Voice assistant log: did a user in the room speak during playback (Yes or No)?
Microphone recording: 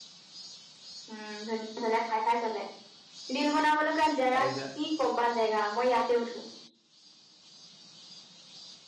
Yes